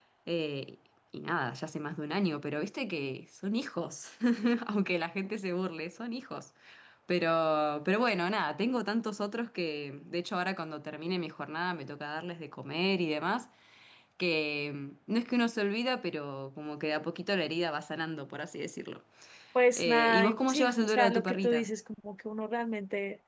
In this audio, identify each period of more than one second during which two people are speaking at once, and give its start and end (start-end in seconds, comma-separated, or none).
19.8-21.7